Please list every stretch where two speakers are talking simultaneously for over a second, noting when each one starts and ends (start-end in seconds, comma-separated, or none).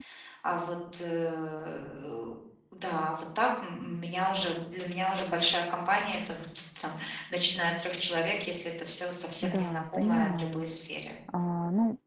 9.4-10.6